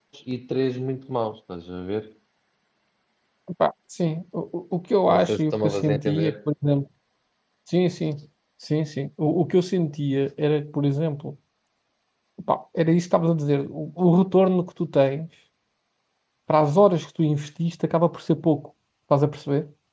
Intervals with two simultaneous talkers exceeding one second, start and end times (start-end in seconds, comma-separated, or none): 5.1-6.3